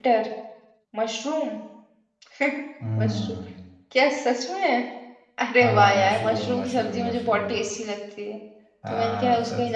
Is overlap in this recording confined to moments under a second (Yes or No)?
No